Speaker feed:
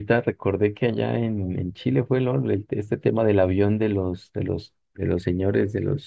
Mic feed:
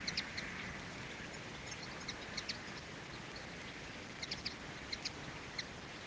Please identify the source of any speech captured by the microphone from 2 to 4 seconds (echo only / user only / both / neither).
neither